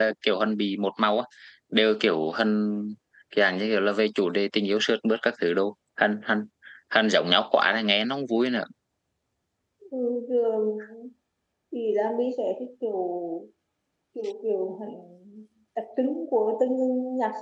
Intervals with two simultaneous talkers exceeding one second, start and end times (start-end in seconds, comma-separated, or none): none